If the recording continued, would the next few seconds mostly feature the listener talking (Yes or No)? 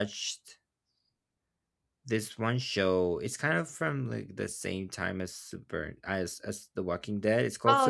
Yes